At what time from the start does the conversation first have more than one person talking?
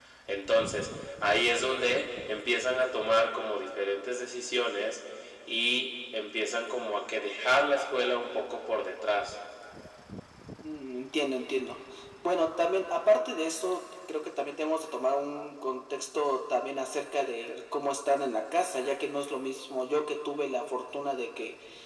none

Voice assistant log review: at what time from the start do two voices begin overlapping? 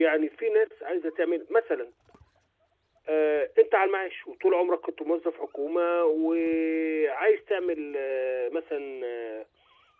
none

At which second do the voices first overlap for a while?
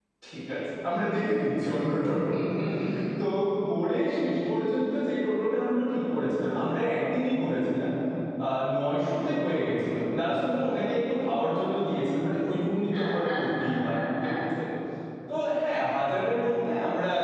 12.9 s

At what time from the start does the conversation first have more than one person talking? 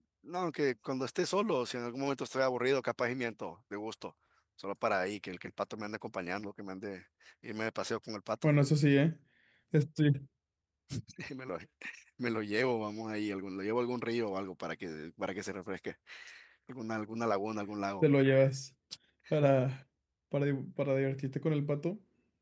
none

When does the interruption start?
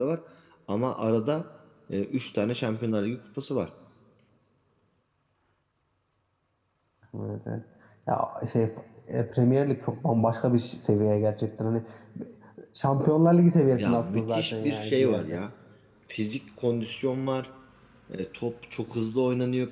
13.7 s

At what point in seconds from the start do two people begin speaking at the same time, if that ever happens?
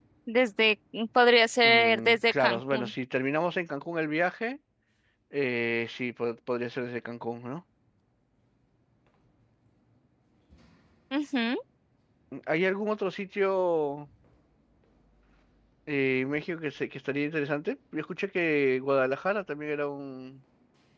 1.6 s

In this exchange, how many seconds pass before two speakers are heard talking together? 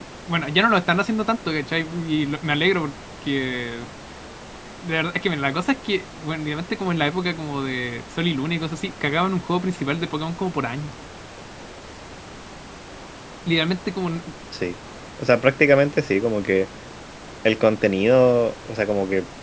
none

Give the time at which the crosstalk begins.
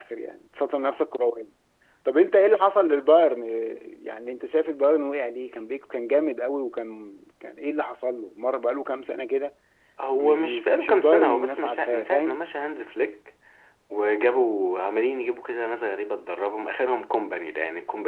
10.2 s

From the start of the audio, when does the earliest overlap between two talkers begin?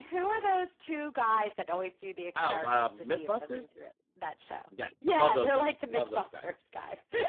2.4 s

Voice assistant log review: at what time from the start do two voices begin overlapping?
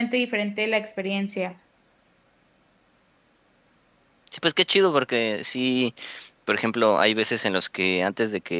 none

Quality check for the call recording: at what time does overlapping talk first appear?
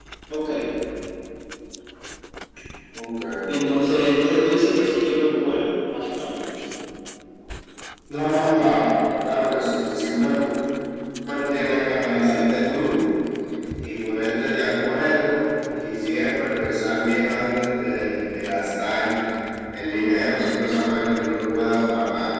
none

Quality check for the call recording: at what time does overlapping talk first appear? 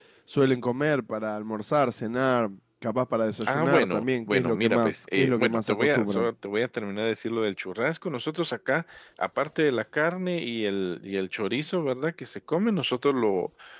3.5 s

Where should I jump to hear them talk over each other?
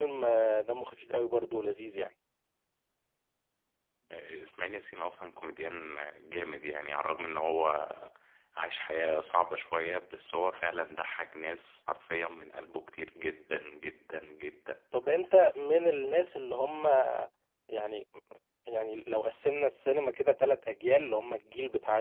none

